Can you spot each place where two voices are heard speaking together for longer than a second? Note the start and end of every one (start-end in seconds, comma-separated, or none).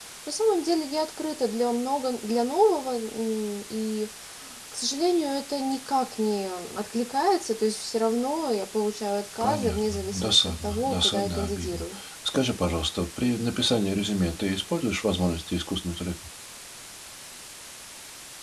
9.4-11.8